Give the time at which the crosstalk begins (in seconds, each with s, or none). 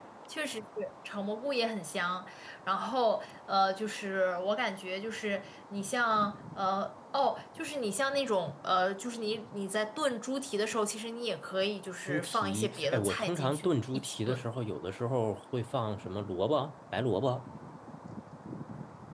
12.1 s